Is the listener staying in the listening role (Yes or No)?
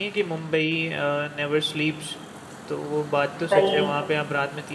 Yes